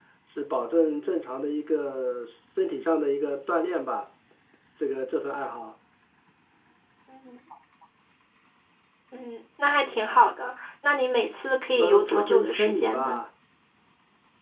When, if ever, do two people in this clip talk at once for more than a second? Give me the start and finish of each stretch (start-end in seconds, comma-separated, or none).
11.8-13.2